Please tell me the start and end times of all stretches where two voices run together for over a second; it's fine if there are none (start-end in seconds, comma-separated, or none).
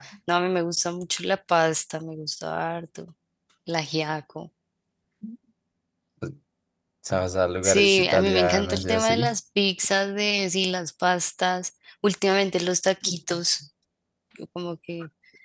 7.6-9.3